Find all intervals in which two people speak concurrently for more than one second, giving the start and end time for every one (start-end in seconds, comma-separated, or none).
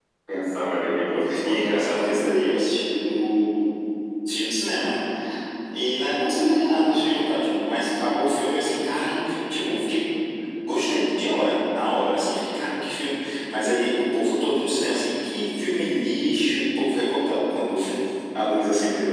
0.5-2.5